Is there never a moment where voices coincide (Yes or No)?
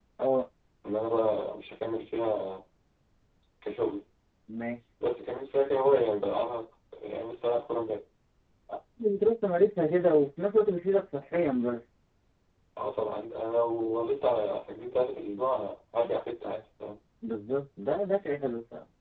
Yes